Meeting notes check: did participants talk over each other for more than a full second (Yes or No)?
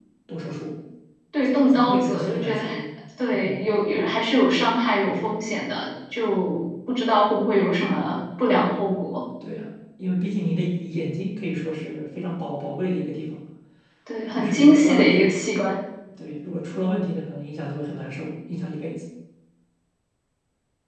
Yes